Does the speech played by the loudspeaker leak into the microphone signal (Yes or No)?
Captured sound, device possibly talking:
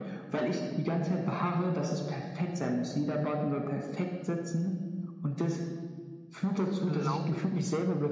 Yes